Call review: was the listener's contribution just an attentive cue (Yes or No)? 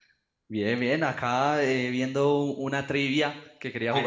No